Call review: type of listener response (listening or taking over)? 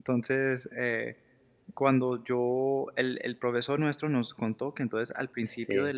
listening